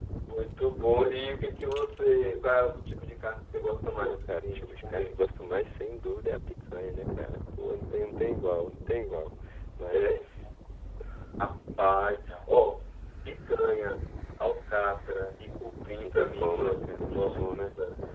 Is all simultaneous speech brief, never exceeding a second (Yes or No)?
No